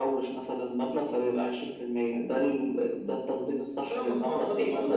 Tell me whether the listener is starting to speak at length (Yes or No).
Yes